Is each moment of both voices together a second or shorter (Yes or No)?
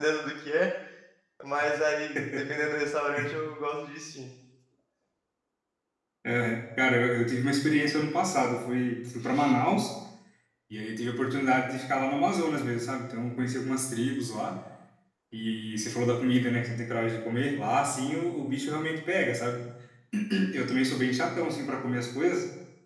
Yes